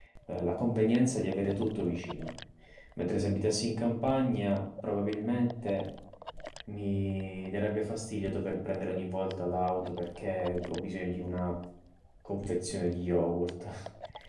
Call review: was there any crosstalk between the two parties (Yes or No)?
No